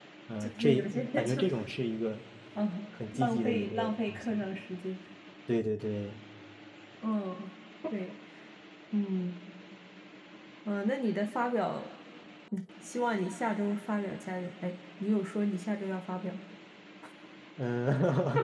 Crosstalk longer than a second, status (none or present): present